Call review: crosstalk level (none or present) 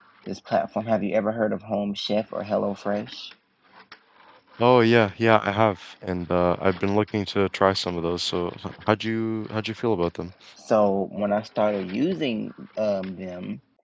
none